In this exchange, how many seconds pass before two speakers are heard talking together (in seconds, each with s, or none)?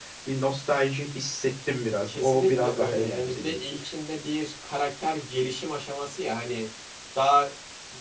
2.1 s